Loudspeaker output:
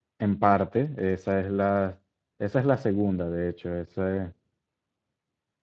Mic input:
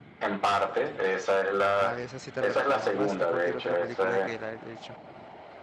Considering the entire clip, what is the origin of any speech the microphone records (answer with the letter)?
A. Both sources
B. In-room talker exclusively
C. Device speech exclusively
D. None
A